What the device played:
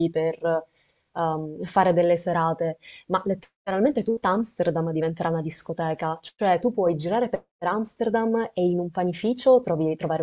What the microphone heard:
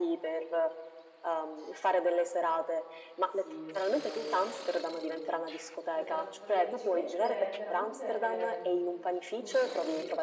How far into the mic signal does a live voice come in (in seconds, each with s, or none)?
3.2 s